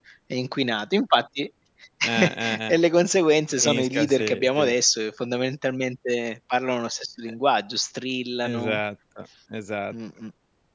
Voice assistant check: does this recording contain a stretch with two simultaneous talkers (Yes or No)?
Yes